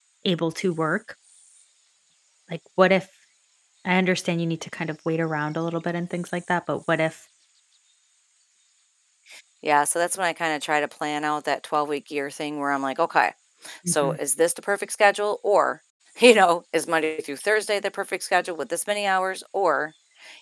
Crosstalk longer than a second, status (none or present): none